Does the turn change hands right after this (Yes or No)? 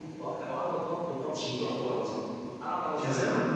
Yes